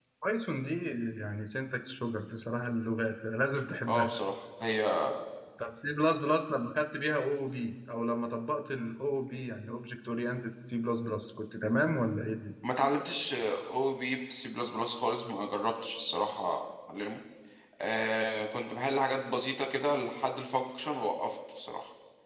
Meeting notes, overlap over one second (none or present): none